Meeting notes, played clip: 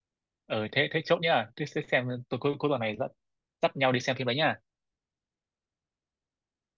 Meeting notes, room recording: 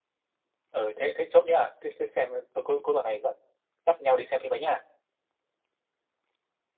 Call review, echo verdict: present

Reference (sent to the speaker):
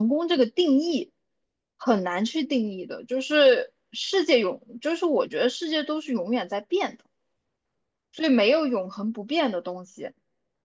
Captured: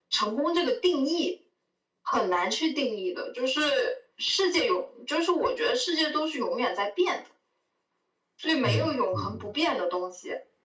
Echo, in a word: present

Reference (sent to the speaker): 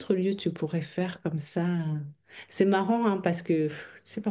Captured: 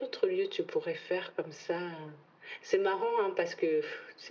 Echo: present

